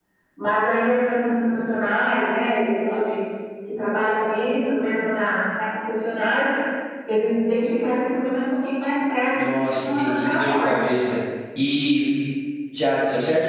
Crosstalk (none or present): present